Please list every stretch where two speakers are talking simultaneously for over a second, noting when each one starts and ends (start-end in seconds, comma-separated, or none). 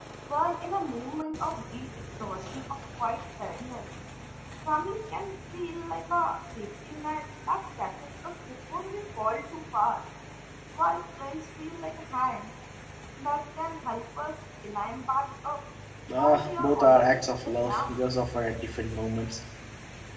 16.2-17.9